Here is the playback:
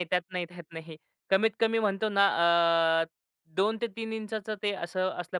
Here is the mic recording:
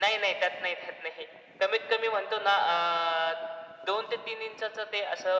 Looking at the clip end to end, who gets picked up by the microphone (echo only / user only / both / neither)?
echo only